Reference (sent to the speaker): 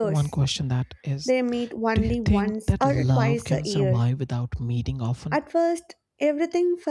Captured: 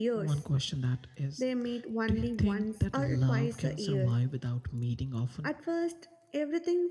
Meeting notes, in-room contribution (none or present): none